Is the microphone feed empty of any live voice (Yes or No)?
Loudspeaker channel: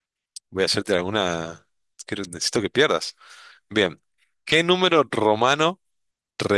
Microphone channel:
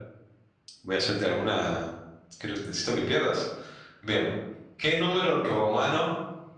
Yes